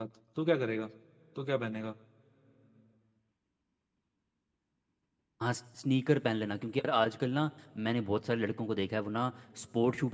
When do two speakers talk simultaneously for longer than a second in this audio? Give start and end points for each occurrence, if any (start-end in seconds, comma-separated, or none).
none